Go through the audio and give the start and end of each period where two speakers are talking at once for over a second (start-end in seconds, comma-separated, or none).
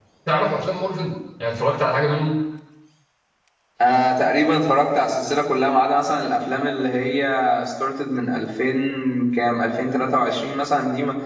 none